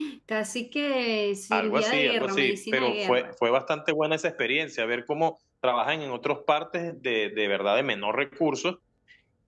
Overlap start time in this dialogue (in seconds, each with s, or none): 1.5 s